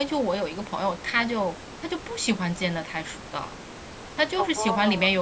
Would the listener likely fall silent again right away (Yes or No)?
Yes